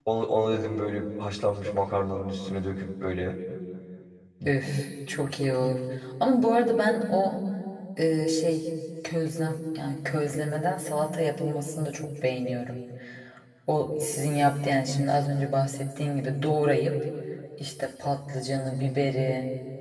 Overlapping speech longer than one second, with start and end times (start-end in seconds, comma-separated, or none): none